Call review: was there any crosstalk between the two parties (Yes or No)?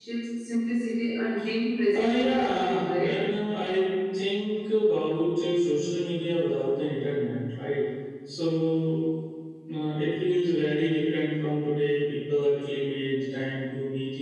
Yes